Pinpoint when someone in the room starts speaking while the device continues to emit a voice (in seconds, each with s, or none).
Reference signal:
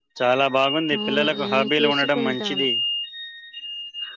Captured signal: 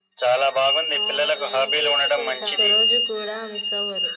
2.5 s